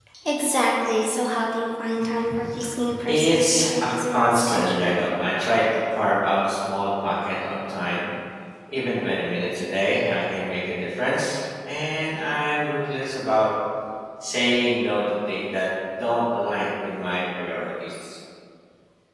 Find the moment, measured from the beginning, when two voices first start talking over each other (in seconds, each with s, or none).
3.1 s